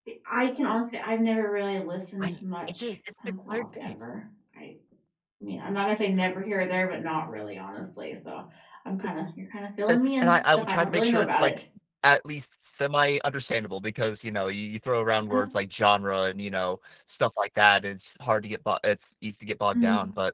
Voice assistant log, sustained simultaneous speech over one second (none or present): present